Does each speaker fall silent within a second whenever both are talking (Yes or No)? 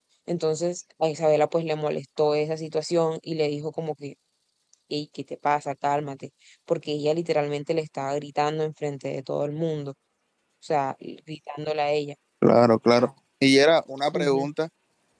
Yes